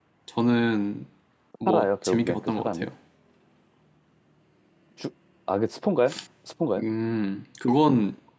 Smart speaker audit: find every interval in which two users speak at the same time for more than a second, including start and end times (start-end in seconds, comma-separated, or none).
1.7-2.9